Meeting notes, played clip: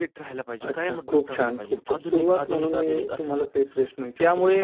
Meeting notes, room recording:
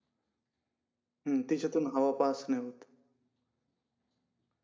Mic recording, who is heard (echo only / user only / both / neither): user only